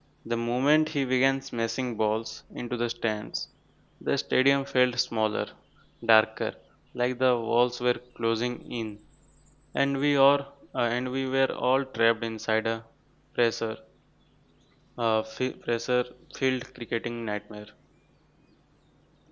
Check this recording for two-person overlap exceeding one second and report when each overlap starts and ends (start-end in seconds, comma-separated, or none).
none